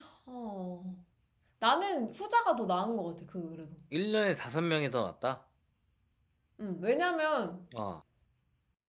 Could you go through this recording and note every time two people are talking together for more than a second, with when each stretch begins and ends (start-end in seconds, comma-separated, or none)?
none